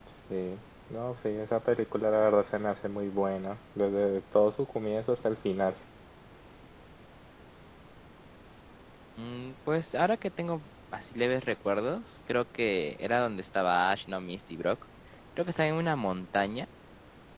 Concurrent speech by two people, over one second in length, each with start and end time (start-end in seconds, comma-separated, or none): none